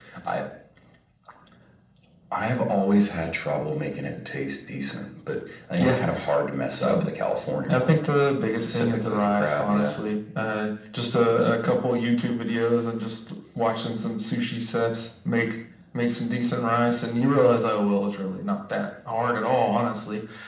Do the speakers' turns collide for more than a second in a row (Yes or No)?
Yes